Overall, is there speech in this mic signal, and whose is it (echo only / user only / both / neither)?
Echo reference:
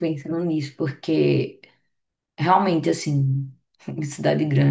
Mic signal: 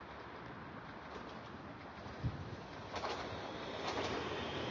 neither